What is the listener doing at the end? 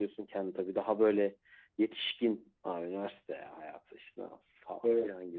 listening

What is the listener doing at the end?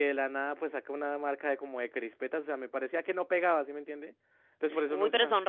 taking over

